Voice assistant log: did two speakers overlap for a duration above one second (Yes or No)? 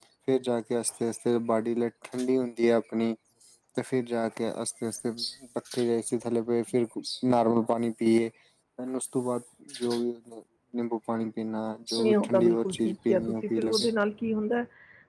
Yes